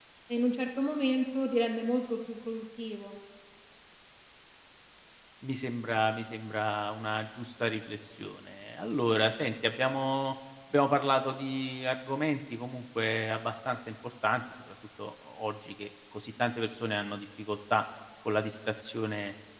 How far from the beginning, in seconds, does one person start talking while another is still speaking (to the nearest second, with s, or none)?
none